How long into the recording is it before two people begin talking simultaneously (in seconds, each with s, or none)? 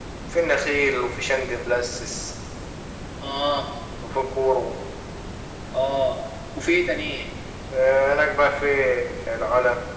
none